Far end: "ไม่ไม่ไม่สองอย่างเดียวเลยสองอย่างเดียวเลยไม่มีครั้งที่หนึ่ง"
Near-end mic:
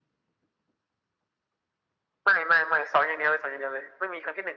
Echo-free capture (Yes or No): No